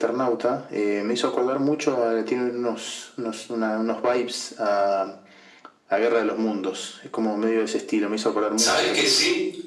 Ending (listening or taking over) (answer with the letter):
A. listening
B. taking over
B